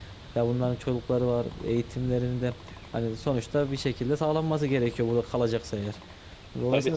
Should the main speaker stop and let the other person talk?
No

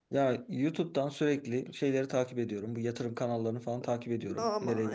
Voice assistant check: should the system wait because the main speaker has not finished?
No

